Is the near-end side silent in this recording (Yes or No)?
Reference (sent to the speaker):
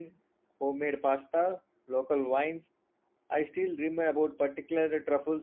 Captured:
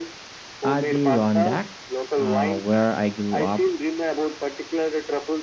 No